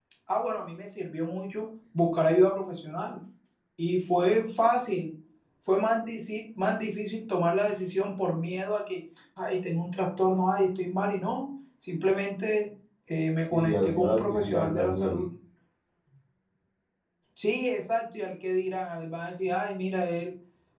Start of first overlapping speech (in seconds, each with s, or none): 13.5 s